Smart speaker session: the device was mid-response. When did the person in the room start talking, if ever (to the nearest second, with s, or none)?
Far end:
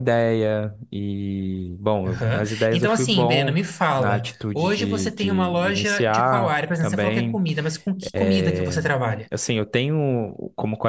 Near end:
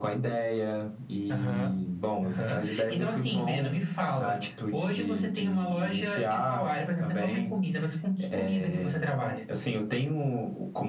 1 s